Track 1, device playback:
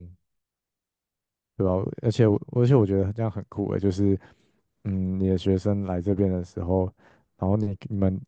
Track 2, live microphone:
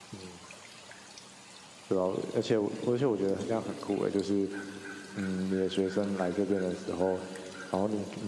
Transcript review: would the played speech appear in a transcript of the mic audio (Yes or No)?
Yes